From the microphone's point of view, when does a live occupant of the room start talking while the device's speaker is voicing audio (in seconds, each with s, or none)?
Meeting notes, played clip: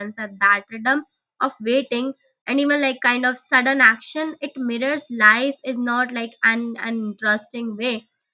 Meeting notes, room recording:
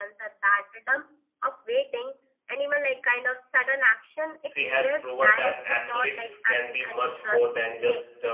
4.4 s